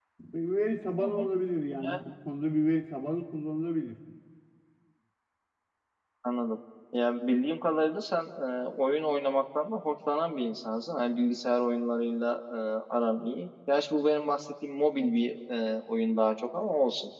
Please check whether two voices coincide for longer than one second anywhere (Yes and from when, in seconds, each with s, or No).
No